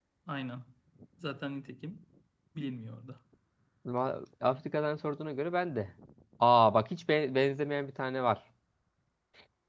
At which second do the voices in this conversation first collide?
none

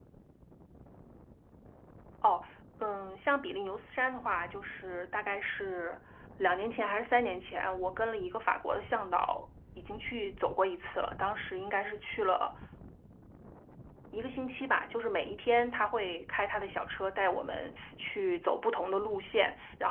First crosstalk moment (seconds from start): none

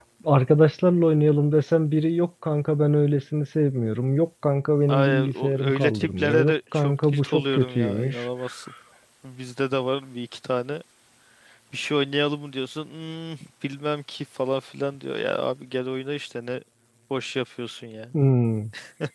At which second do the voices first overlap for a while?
4.9 s

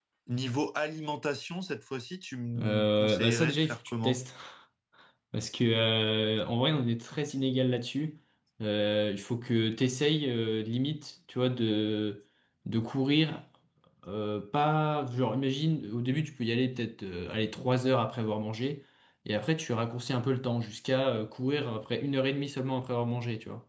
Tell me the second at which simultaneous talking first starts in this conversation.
2.5 s

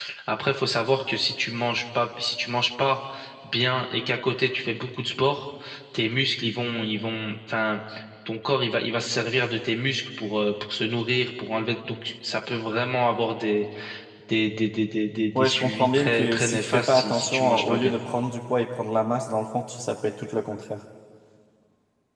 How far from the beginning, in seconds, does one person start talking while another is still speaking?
15.3 s

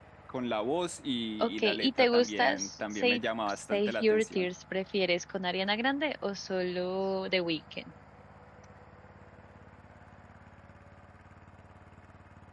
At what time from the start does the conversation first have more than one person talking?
1.4 s

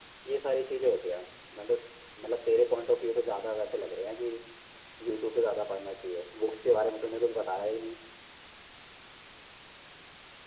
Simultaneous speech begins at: none

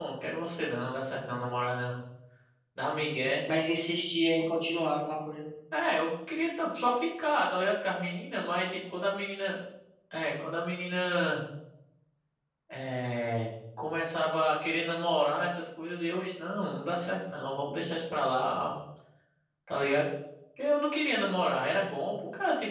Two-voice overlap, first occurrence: none

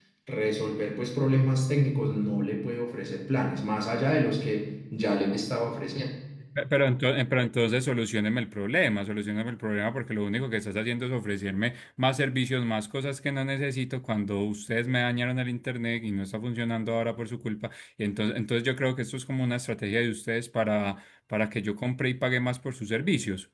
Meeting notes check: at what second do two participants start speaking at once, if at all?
none

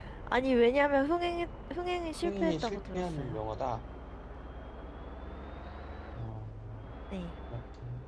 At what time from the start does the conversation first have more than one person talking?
2.1 s

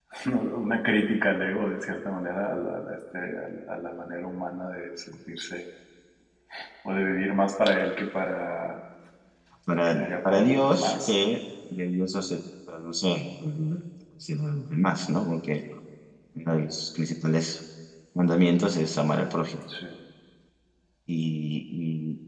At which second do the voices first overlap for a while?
9.9 s

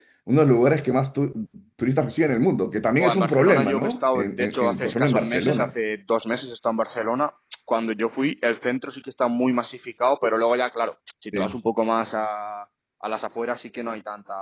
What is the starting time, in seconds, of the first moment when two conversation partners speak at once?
3.0 s

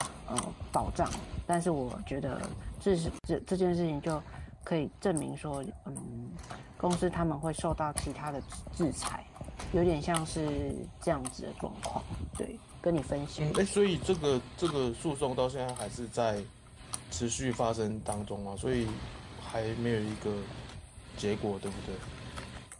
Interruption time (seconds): none

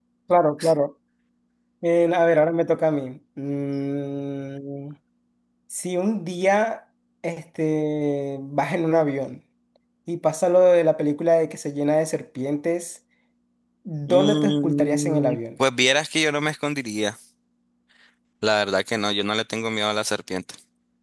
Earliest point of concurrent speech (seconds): 14.1 s

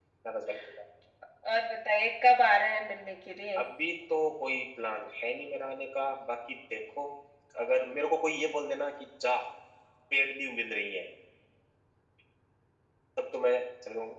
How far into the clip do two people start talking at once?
none

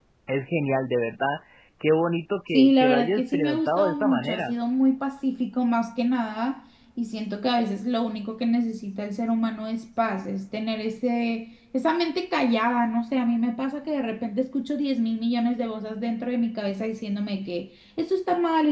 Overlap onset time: 2.5 s

